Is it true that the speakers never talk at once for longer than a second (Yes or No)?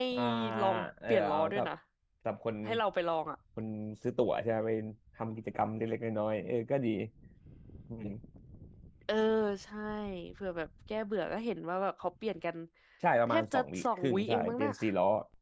No